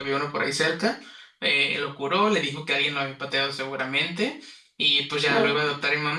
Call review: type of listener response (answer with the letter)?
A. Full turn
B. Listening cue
B